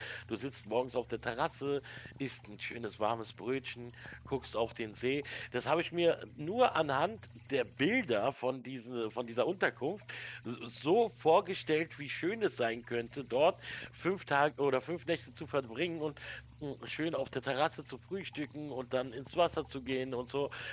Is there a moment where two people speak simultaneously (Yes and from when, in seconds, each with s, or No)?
No